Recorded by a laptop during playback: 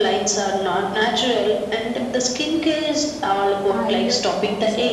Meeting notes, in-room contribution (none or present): present